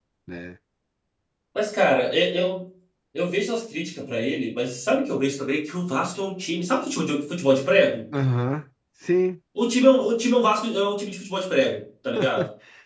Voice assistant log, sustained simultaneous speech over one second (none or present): none